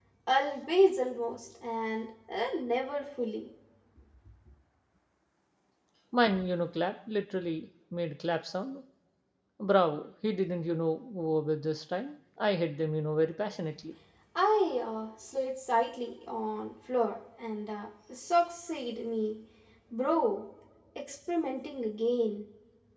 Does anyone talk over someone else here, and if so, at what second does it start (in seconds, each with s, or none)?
none